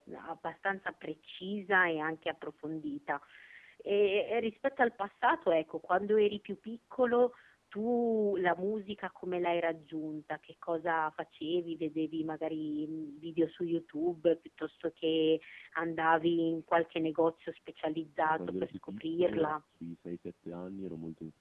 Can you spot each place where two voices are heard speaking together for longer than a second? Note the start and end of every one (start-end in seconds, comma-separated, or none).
18.2-19.6